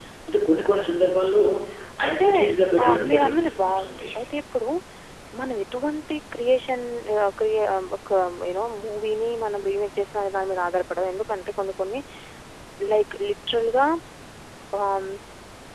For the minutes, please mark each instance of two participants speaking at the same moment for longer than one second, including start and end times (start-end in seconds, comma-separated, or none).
2.8-4.1